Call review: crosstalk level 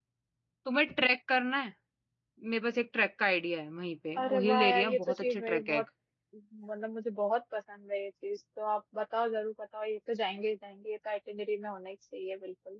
present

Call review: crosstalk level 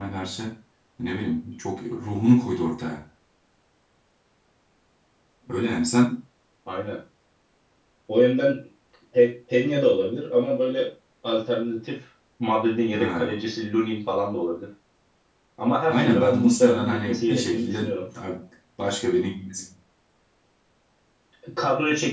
present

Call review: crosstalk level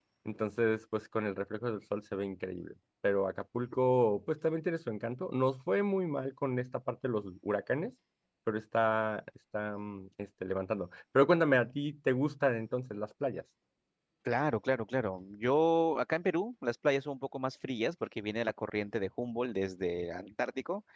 none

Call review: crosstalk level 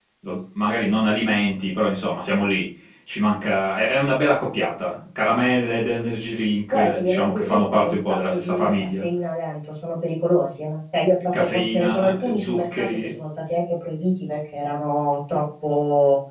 present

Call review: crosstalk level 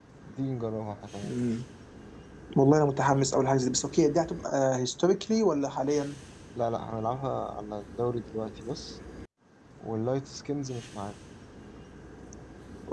none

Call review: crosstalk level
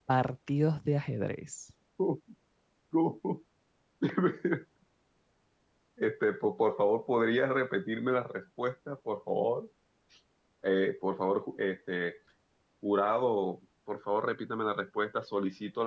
none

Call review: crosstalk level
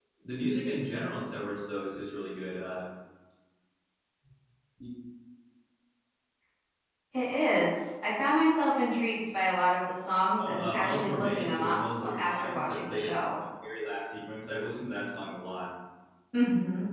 present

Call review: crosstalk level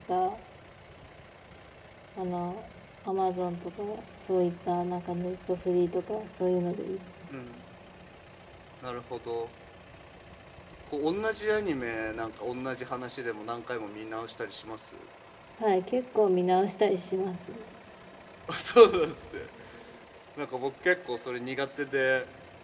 none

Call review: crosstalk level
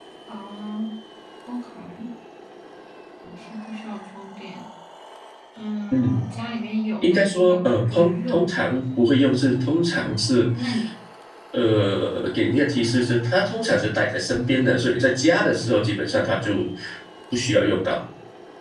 present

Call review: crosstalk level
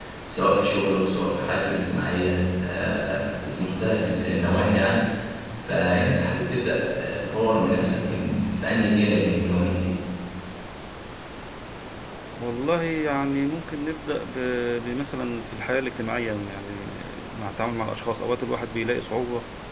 none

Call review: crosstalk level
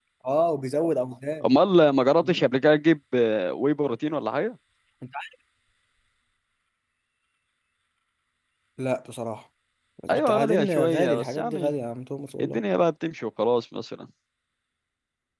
present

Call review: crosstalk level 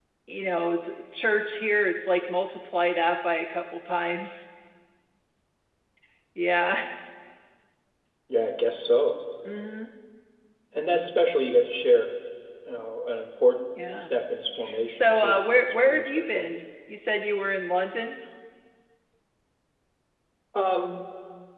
present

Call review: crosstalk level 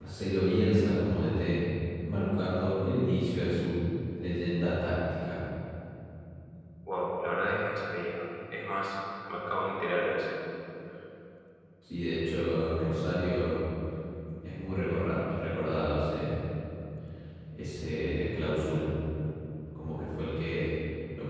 none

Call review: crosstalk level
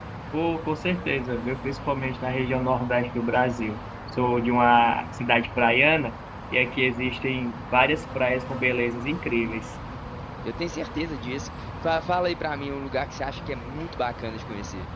none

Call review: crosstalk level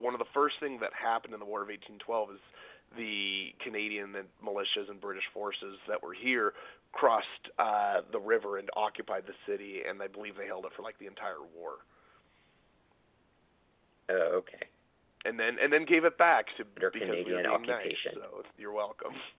present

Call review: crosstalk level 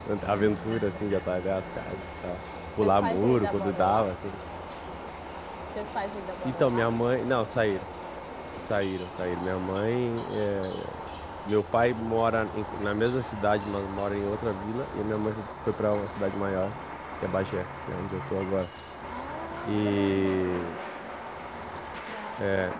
present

